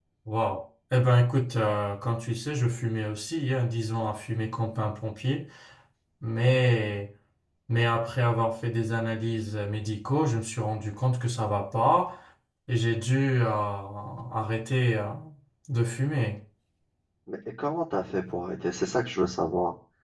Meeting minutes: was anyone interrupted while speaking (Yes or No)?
No